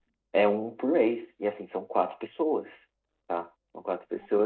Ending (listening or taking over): taking over